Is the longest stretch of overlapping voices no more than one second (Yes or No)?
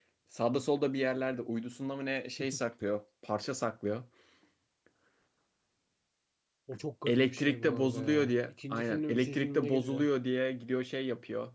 No